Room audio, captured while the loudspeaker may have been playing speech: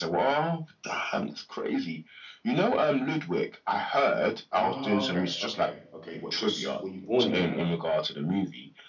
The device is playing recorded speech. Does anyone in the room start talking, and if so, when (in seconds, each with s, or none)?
4.5 s